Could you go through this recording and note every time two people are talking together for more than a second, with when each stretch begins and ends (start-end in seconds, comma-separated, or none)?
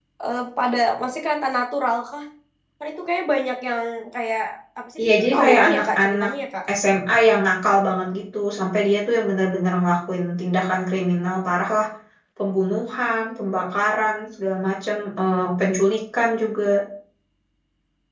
5.0-6.3